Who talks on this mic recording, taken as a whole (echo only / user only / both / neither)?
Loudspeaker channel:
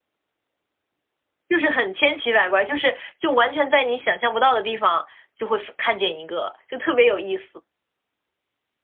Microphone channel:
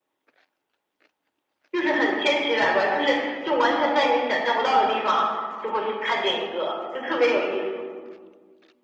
echo only